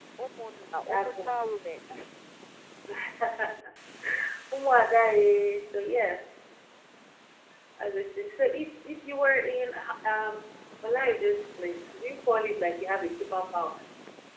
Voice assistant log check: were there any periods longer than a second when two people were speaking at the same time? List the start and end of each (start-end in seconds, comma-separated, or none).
none